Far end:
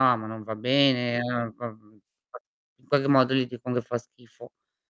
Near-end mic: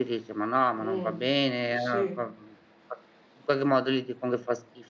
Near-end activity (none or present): present